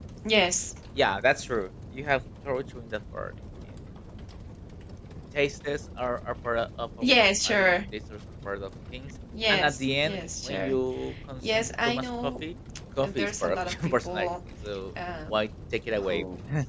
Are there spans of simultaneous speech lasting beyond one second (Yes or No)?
Yes